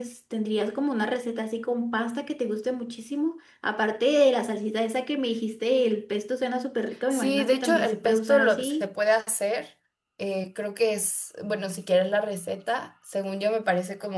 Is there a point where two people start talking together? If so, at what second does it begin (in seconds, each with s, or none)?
7.1 s